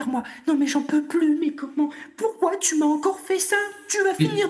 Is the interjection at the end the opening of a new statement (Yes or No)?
Yes